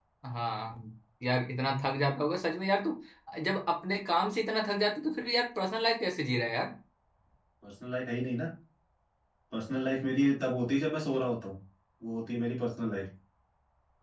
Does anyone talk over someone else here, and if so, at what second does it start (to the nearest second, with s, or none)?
none